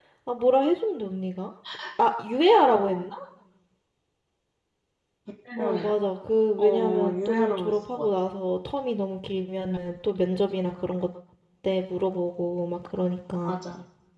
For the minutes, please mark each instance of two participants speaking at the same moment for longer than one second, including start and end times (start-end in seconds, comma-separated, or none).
6.6-8.1